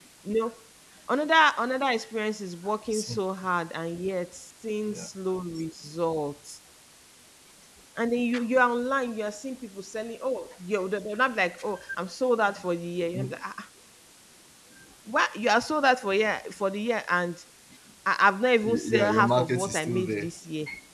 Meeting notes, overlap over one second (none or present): present